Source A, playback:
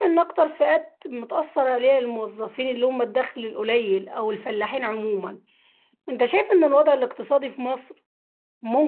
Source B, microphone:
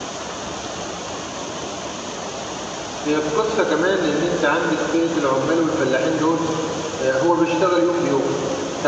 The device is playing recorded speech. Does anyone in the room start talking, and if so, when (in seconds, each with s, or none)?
3.1 s